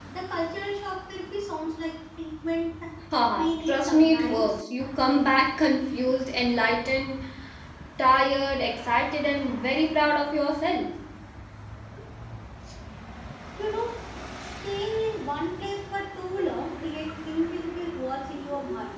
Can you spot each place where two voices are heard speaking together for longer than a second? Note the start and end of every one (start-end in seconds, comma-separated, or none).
3.3-4.5